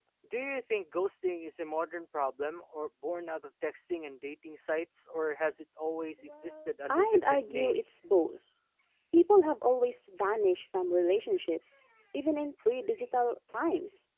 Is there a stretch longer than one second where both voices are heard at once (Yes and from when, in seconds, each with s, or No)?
Yes, from 6.3 s